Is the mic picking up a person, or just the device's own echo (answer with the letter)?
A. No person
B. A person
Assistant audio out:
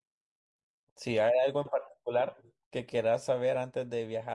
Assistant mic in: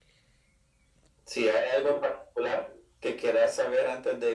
A